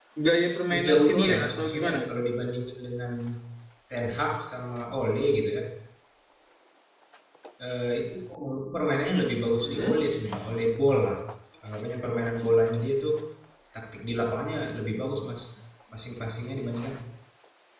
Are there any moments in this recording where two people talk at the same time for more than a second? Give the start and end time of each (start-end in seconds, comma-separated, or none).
0.7-2.0